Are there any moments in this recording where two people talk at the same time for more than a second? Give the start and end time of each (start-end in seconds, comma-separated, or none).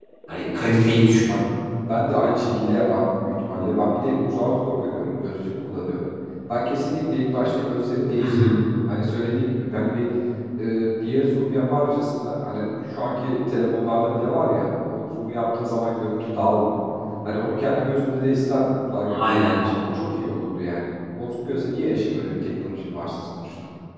none